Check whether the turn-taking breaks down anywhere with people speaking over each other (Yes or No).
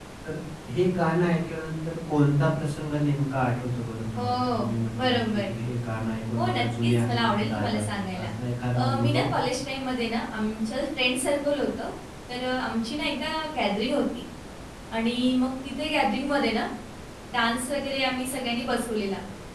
Yes